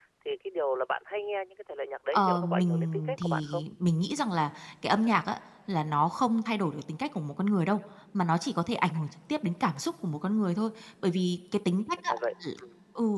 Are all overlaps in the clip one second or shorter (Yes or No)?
No